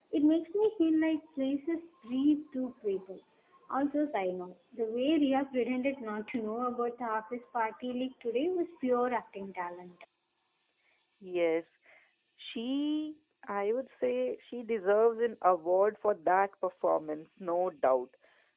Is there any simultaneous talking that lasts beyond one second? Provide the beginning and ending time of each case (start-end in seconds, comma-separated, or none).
none